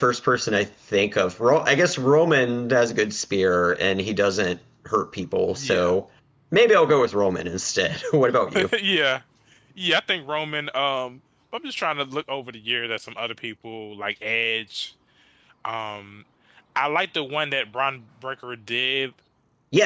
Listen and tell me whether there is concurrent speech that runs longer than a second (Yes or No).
No